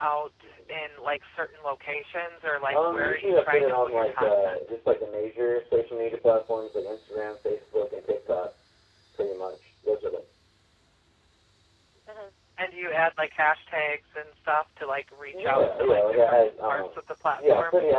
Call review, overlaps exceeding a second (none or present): present